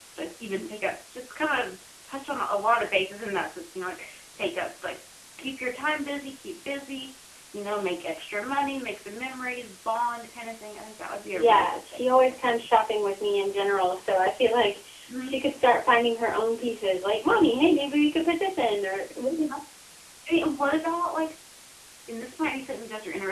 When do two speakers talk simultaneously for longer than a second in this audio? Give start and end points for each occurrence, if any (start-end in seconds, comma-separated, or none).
11.3-12.6